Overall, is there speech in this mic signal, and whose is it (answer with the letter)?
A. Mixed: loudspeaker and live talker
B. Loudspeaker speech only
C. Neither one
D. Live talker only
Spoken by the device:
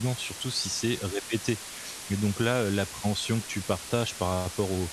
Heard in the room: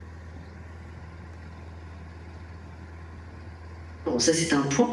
D